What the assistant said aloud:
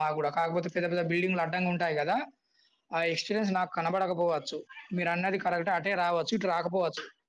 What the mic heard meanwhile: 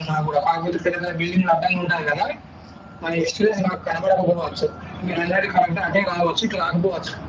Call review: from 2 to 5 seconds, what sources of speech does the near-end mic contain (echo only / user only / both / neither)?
echo only